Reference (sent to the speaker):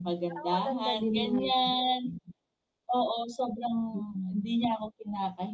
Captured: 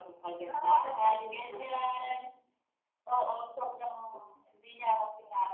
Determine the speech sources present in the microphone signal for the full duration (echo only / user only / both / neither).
echo only